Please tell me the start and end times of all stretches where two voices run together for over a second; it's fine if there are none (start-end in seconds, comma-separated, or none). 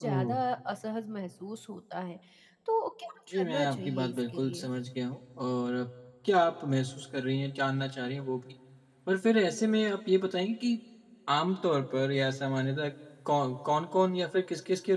3.3-4.7